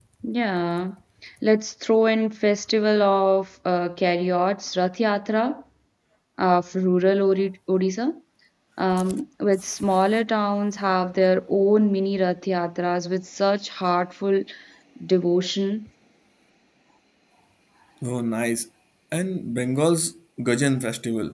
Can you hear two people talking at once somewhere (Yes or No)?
No